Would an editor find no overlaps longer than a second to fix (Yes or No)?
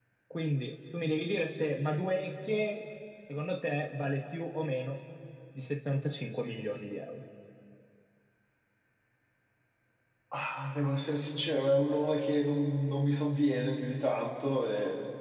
Yes